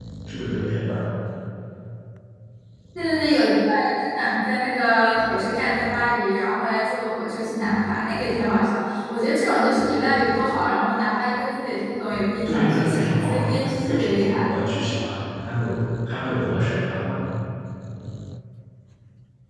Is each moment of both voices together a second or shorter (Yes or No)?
No